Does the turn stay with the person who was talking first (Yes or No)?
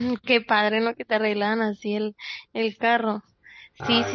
Yes